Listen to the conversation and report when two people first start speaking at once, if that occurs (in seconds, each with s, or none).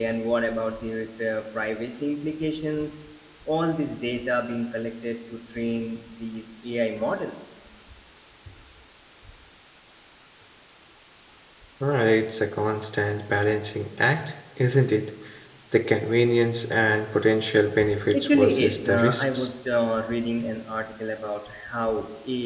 18.1 s